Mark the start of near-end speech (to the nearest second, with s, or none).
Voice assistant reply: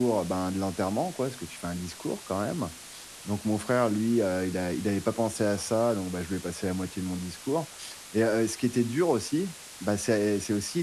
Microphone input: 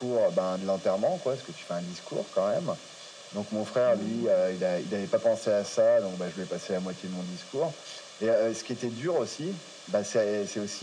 4 s